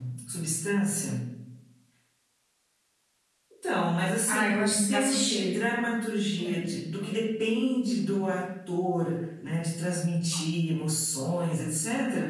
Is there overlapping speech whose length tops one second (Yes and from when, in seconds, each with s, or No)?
Yes, from 4.3 s